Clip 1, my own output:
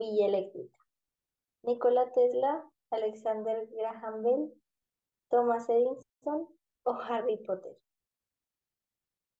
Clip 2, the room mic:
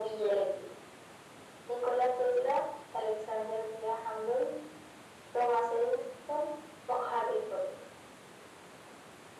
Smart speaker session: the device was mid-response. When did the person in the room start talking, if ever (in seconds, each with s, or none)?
none